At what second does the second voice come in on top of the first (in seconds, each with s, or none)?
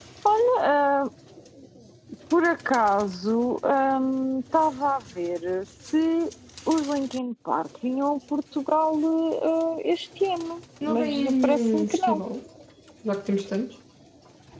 10.8 s